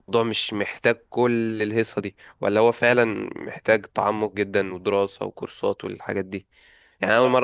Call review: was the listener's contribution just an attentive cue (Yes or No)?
Yes